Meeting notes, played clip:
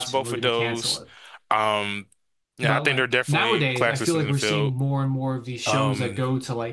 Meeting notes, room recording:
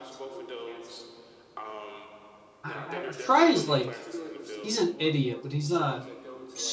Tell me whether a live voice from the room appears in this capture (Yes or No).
Yes